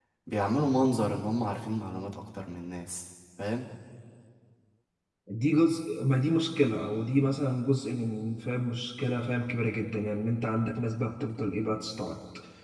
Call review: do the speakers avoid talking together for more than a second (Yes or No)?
Yes